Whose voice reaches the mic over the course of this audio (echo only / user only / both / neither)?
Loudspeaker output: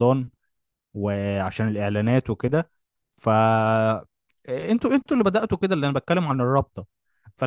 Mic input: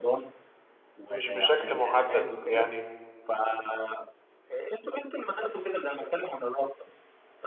both